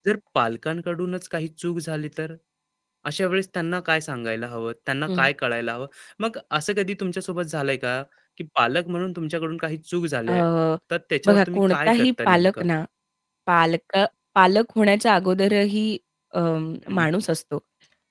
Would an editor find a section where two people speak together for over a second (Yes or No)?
Yes